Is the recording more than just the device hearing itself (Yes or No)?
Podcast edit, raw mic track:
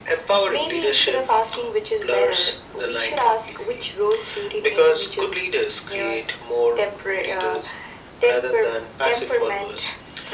No